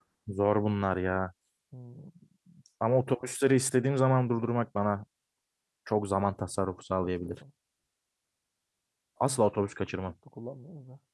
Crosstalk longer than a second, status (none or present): none